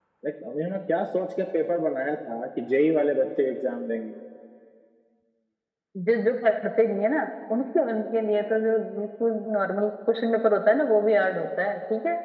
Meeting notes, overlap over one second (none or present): none